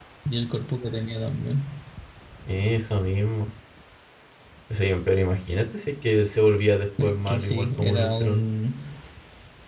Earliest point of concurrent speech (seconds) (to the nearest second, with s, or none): 7 s